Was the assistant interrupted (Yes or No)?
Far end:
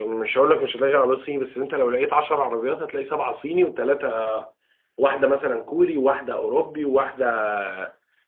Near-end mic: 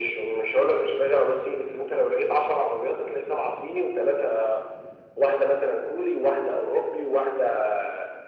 No